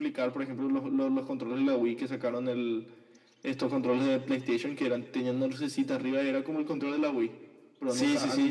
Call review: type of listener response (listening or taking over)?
taking over